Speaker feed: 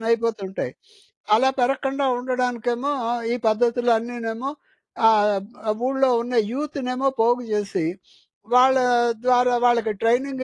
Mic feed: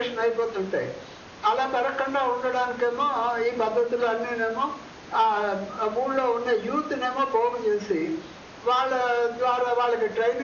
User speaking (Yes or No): No